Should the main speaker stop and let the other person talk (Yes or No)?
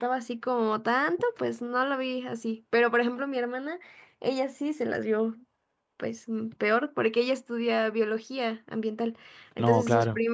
No